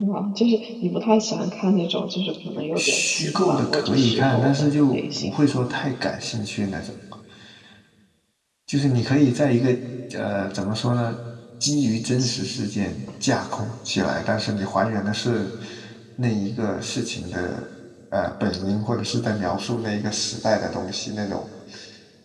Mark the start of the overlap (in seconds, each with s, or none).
2.6 s